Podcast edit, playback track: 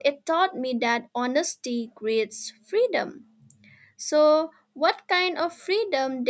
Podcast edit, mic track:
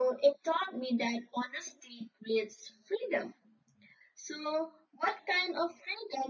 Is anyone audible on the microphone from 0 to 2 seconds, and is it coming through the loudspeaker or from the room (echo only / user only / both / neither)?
echo only